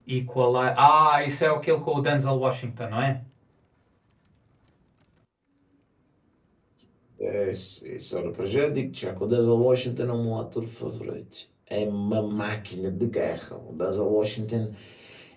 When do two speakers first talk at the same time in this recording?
none

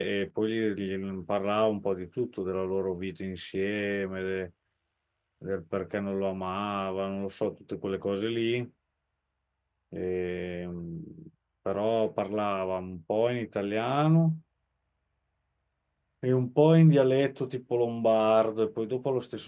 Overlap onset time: none

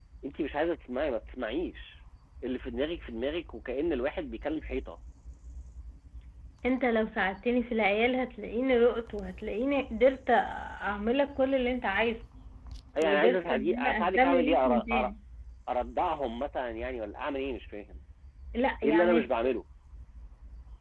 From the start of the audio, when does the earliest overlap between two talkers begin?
13.0 s

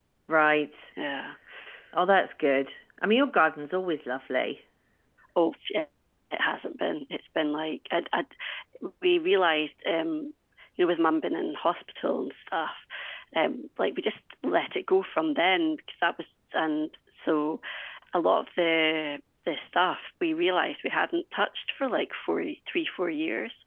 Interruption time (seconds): none

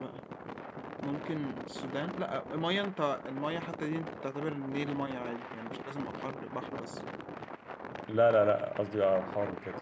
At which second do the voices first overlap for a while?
none

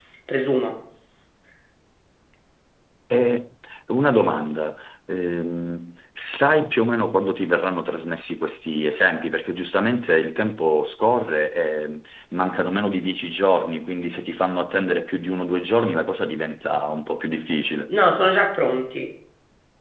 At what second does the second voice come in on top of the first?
none

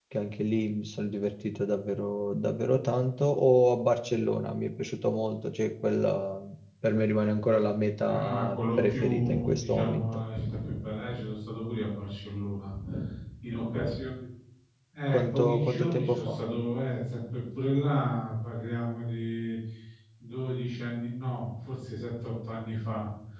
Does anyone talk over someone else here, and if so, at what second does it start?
8.0 s

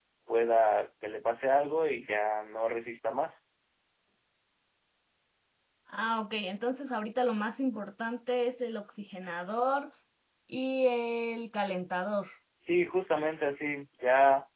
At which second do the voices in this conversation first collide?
none

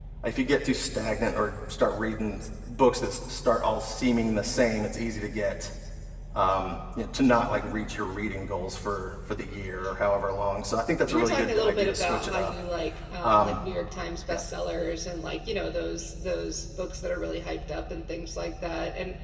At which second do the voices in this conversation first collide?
11.1 s

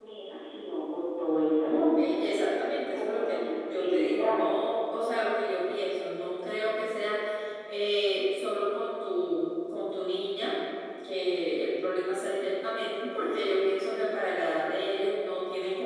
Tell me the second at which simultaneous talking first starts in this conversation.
1.6 s

